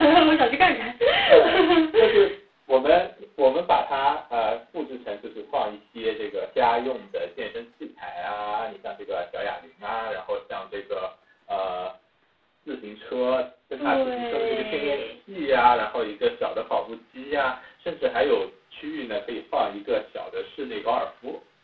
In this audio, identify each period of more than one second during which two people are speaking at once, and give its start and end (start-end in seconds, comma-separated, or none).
13.8-15.2